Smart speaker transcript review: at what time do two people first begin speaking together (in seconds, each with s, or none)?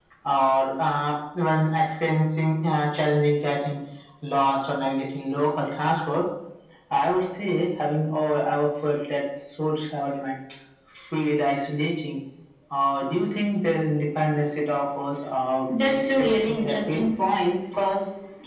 15.7 s